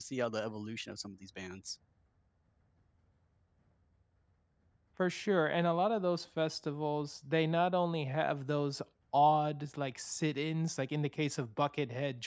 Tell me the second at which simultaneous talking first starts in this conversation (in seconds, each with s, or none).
none